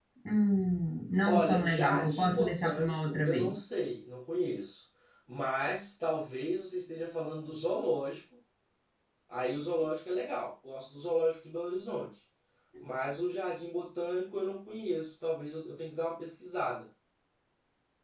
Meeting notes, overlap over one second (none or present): present